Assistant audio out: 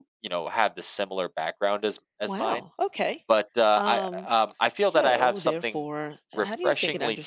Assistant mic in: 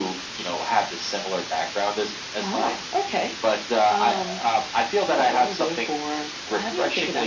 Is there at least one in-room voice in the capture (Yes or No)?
No